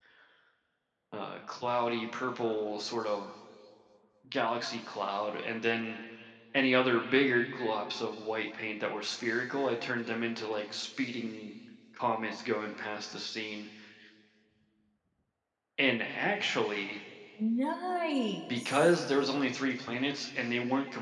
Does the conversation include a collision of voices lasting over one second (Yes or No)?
No